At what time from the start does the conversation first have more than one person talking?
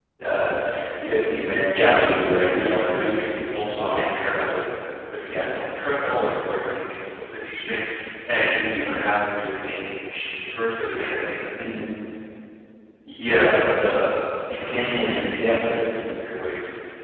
1.7 s

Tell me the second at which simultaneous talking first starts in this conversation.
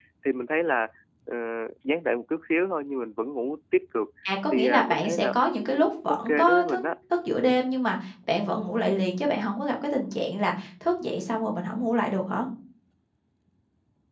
4.5 s

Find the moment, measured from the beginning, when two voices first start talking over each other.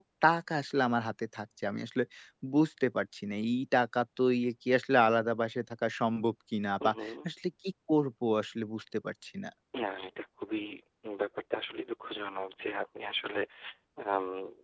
none

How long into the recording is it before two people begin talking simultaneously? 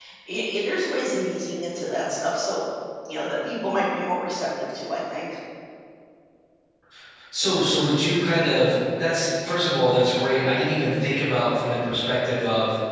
none

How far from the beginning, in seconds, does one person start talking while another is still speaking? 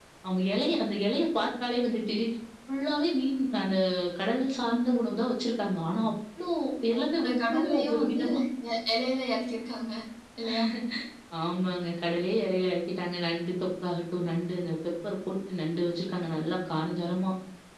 6.9 s

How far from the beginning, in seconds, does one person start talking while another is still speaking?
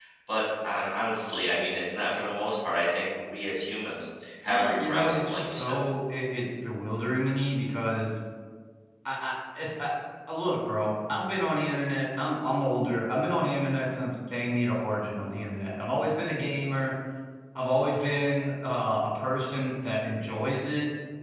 4.5 s

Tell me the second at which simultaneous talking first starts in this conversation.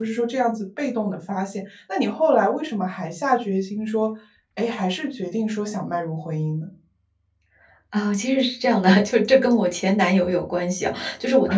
none

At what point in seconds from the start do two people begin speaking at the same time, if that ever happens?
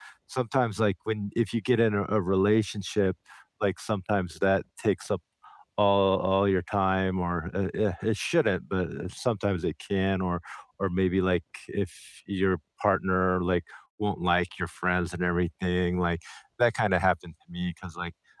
none

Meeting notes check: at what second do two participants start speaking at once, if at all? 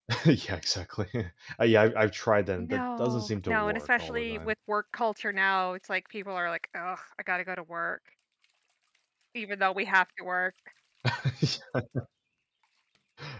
2.6 s

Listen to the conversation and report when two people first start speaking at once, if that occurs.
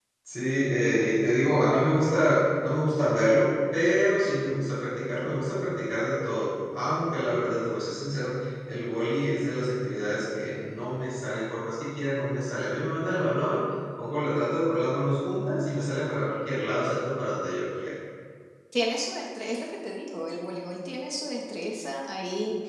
none

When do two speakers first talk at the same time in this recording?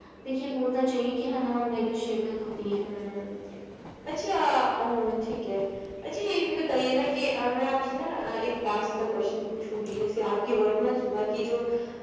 none

